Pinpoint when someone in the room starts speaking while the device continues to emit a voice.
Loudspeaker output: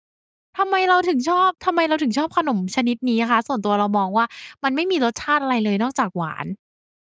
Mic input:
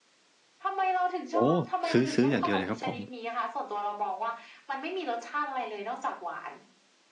1 s

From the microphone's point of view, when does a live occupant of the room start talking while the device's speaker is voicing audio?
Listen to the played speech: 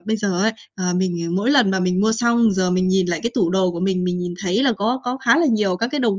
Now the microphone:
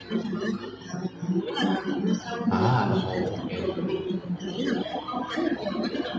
2 s

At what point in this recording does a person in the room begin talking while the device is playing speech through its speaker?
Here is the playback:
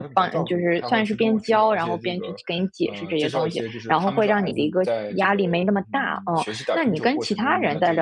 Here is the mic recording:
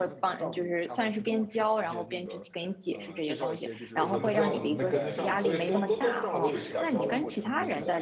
4 s

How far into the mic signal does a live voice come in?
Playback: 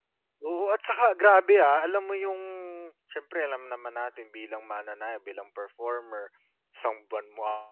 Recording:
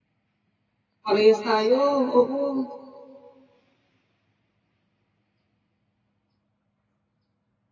1 s

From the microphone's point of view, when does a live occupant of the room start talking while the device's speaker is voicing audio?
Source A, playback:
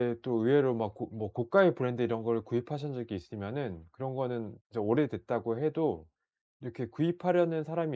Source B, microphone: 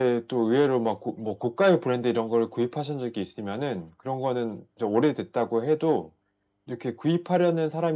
none

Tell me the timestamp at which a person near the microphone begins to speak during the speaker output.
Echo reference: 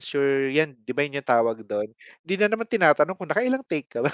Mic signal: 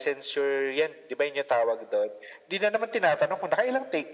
none

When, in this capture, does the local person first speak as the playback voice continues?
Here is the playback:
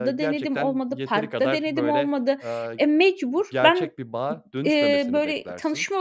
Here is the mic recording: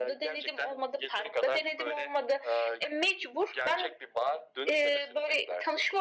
none

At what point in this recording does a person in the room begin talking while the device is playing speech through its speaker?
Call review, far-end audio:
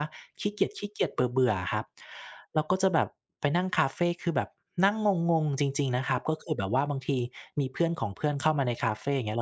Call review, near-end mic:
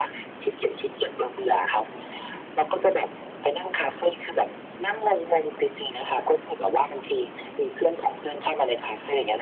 none

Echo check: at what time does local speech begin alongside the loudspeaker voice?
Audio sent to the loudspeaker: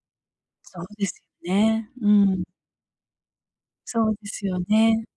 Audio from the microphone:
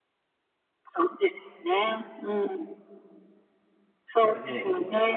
4 s

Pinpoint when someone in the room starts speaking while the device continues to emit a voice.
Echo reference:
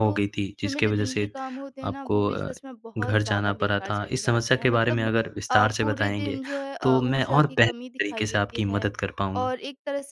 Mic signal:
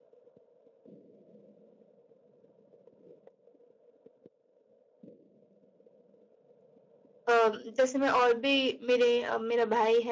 7 s

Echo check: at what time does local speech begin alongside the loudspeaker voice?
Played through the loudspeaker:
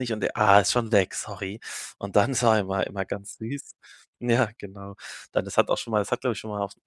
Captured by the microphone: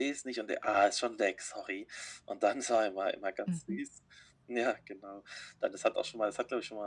3 s

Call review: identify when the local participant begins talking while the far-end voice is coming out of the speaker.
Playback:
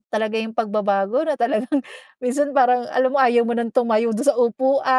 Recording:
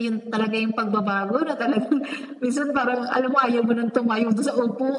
none

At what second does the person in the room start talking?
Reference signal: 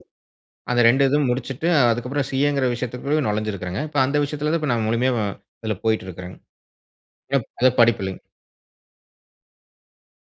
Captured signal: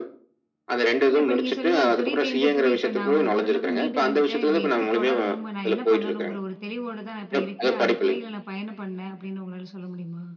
1 s

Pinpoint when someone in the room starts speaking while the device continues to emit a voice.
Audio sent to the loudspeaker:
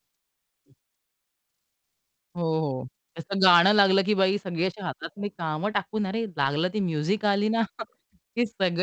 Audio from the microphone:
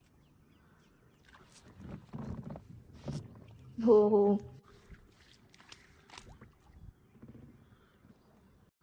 4 s

